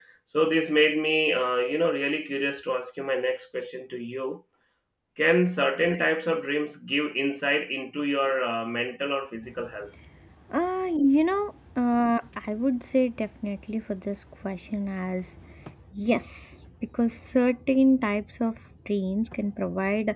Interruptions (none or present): none